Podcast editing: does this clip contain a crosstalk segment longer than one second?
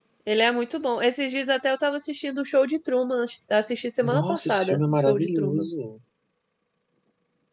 Yes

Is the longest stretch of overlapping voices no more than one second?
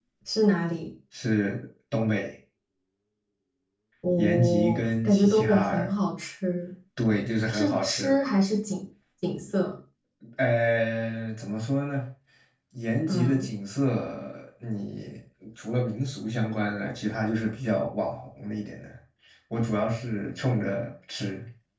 No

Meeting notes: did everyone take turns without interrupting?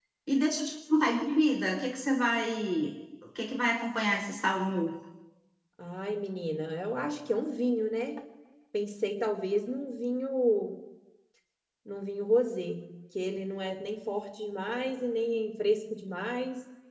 Yes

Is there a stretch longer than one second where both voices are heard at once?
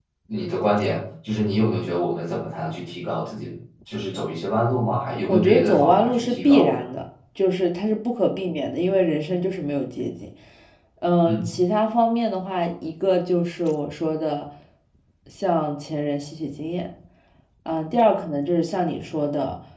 Yes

